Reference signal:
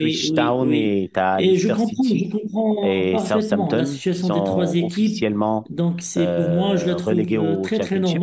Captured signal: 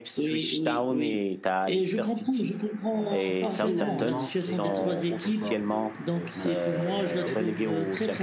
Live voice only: euh, pour finalement égaler le record de euh, Manchester United.

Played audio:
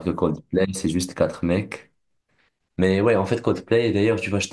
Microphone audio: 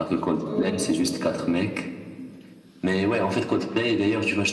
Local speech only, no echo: Ouais, ouais, bien sûr, je connais.

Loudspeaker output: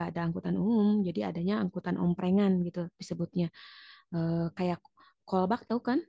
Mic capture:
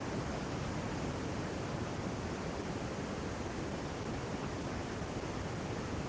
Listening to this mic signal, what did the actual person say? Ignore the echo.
none

